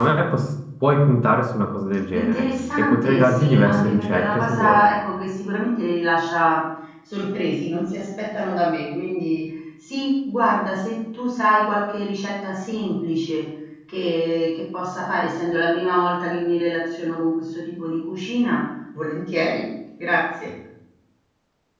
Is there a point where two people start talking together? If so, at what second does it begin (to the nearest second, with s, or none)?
2 s